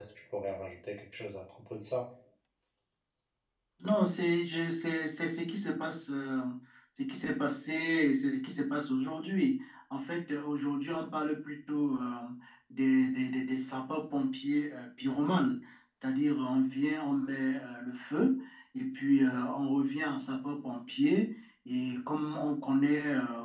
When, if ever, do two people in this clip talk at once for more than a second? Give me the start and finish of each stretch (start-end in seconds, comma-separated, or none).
none